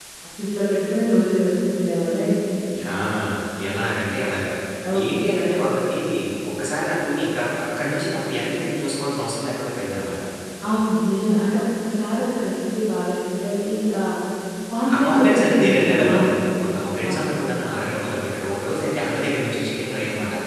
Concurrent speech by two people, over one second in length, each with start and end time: 14.9-16.3

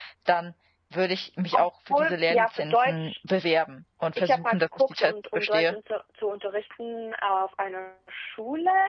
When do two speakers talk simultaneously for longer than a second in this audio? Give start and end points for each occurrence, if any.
1.5-3.1, 4.2-5.8

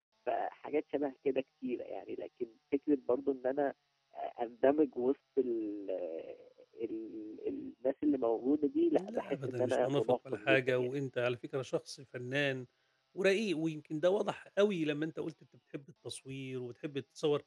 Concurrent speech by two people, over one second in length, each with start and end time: 8.9-10.9

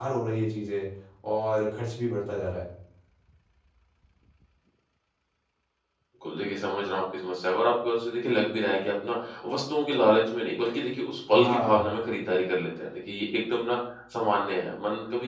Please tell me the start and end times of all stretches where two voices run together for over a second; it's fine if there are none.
none

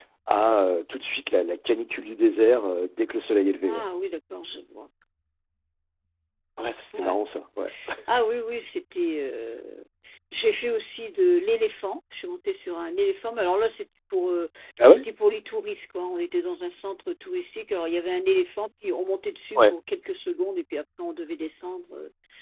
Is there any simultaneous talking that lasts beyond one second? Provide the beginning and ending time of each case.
none

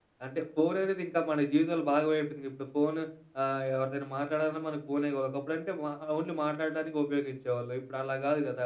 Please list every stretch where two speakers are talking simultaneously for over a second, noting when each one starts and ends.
none

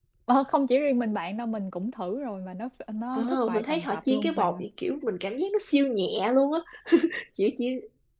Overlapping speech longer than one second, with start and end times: 3.1-4.6

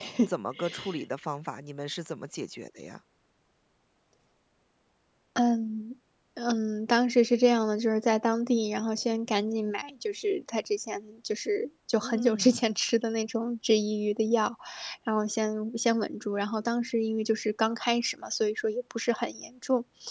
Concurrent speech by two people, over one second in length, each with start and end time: none

